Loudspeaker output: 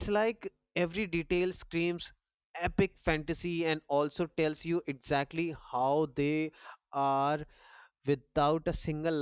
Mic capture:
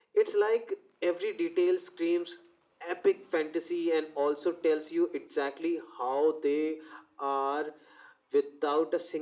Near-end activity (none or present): none